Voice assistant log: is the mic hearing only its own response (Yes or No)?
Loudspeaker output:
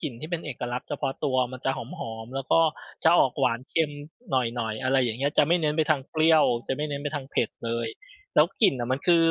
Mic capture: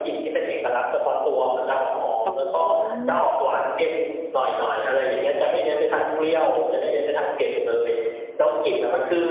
No